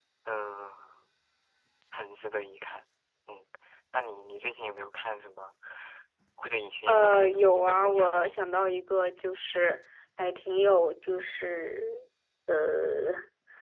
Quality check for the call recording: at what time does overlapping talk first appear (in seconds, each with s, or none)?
6.9 s